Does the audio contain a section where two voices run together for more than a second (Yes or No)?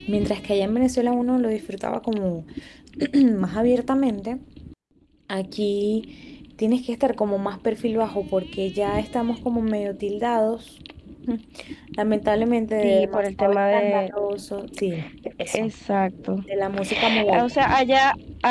Yes